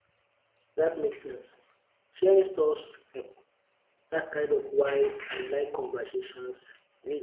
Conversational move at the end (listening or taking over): taking over